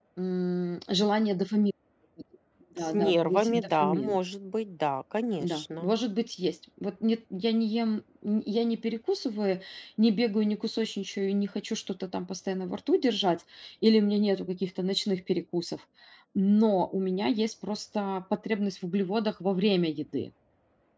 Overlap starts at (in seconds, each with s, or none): 2.8 s